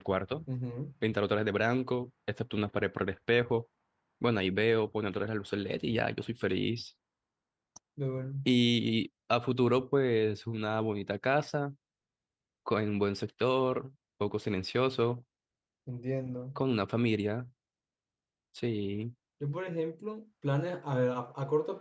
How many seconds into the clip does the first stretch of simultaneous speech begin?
none

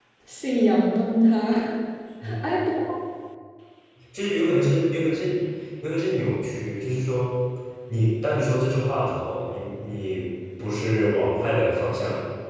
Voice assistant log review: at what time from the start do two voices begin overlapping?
none

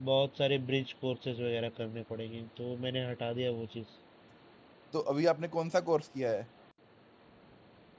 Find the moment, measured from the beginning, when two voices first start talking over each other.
none

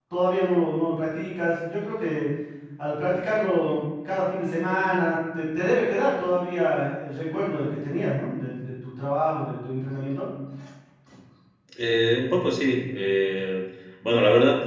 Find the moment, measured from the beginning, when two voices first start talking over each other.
none

